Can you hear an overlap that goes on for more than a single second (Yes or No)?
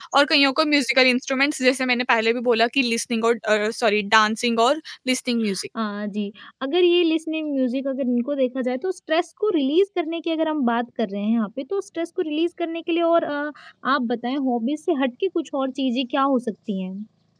No